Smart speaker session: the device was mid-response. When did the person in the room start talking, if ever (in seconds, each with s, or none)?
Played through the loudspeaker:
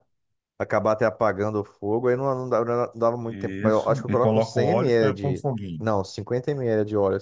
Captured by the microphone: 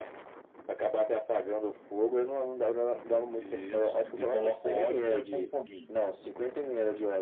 none